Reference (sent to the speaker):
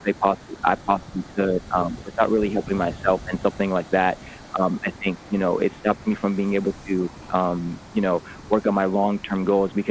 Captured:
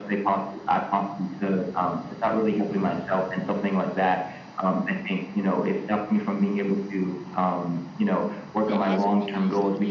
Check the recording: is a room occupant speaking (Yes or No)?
Yes